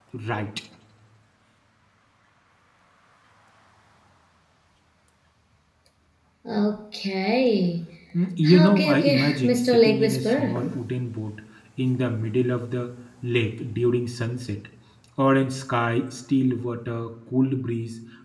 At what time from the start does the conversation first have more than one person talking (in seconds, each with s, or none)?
8.5 s